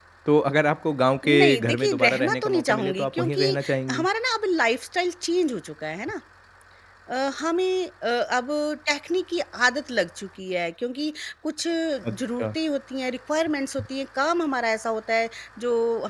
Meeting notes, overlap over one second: present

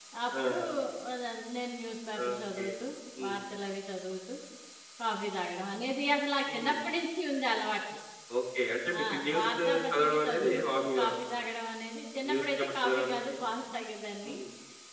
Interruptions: present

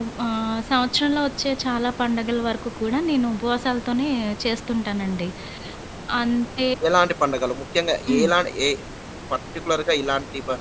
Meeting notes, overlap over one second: none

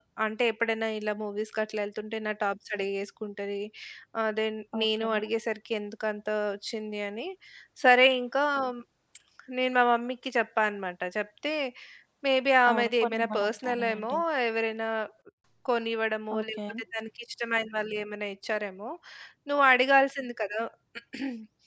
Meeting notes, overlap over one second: present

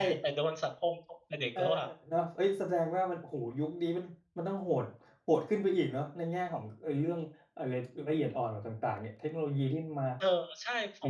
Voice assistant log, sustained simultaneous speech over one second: none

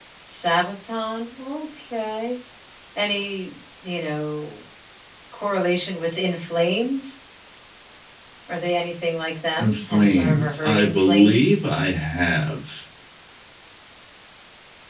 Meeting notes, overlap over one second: present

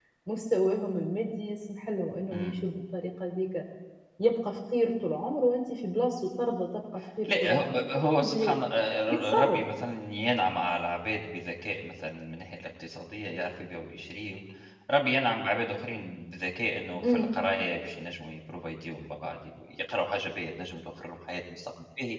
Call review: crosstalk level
present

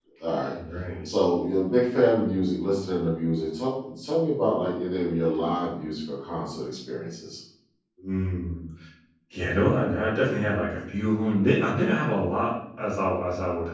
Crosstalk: none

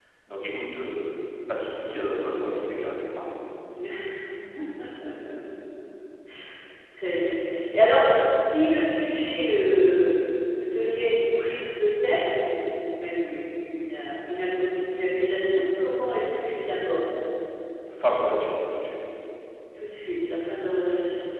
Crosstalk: none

